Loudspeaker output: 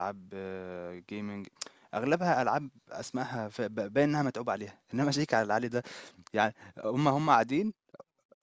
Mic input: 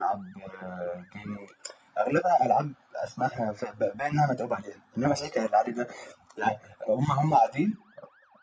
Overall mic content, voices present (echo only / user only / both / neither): echo only